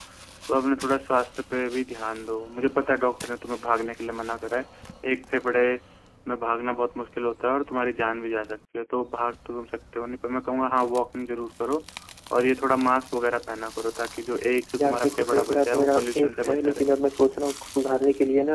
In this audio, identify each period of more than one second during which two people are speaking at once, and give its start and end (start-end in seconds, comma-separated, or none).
14.8-16.8